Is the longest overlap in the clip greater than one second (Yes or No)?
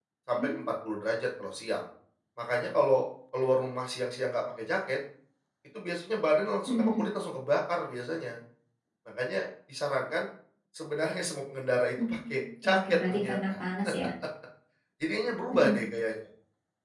Yes